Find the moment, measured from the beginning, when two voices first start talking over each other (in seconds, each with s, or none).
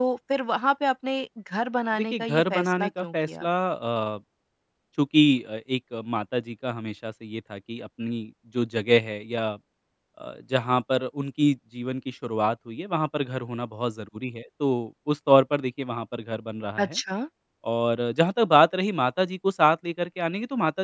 2.1 s